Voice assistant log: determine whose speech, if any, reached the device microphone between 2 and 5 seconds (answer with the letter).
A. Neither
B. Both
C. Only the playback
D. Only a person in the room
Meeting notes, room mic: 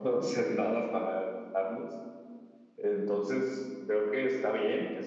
C